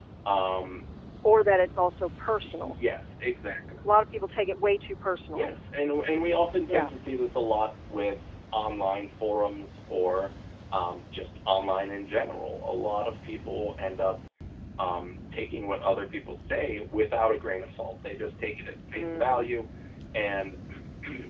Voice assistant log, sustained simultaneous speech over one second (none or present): none